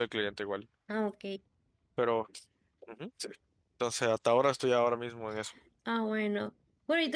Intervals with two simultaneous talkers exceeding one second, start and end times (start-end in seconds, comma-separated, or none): none